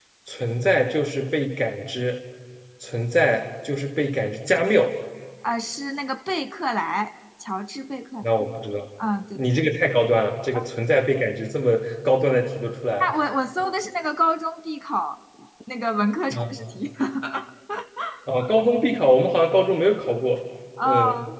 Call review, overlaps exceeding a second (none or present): none